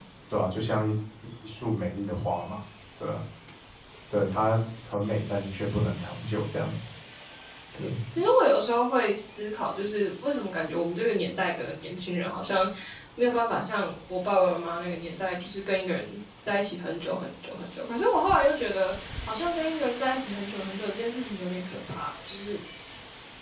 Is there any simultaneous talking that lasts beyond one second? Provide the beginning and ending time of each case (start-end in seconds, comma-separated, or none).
none